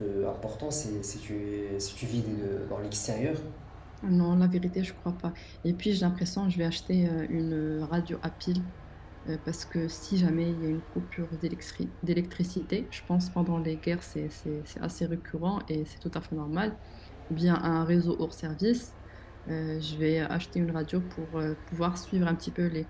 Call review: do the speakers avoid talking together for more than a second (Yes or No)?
Yes